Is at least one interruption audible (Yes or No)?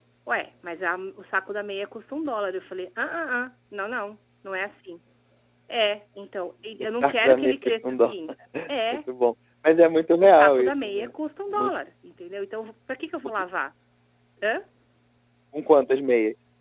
Yes